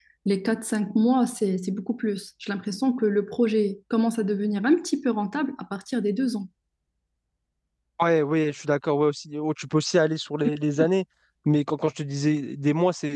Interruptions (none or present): none